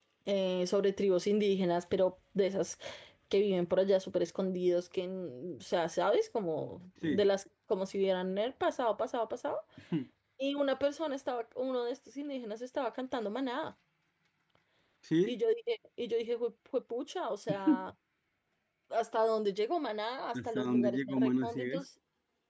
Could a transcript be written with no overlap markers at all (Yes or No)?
No